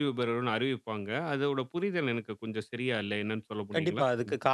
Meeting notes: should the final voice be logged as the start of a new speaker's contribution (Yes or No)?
Yes